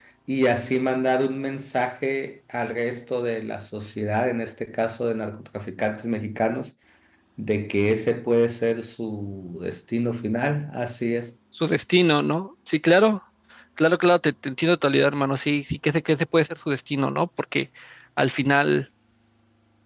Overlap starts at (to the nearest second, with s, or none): none